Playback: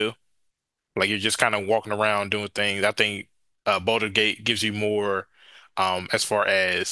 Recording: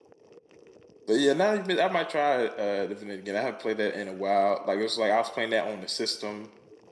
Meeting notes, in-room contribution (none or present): present